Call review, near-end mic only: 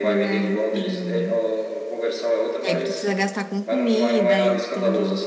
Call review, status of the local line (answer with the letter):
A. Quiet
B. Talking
B